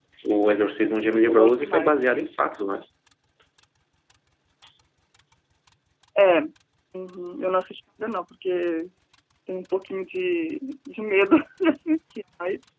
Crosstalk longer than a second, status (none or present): present